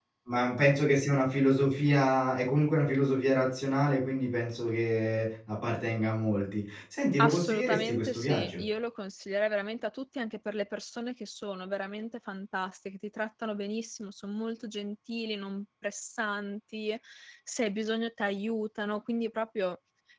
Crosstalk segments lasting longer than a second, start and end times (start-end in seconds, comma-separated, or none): 7.2-8.6